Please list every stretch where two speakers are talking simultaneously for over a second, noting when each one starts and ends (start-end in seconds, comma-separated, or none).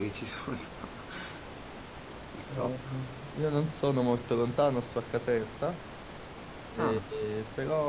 none